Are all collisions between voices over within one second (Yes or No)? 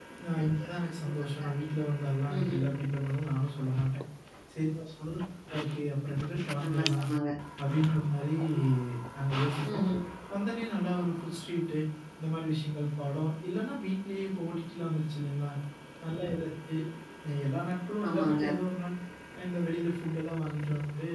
Yes